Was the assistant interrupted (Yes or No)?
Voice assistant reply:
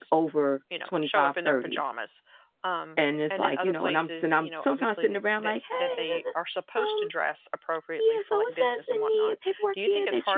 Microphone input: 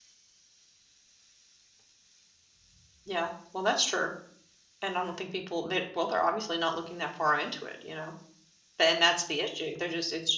Yes